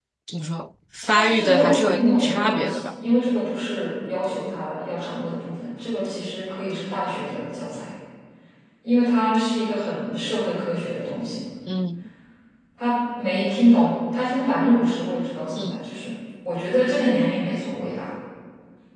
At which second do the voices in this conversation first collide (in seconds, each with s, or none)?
1.1 s